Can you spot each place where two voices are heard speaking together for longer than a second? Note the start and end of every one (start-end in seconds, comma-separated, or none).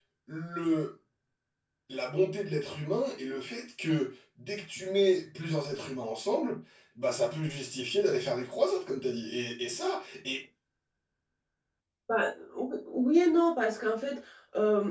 none